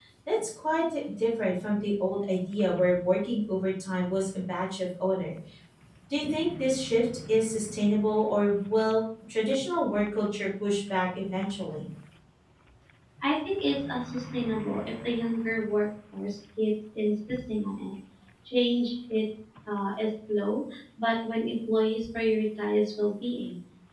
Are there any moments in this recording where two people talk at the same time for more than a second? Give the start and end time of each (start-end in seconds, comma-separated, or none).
none